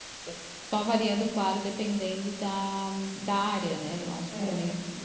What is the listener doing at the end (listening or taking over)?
taking over